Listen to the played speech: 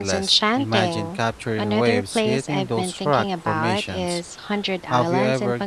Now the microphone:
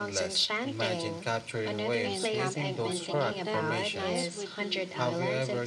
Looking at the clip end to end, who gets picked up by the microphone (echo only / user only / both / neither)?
both